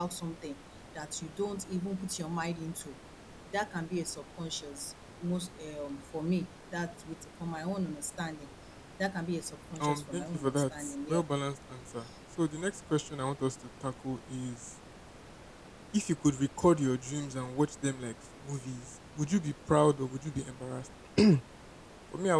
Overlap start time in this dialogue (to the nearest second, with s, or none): 10 s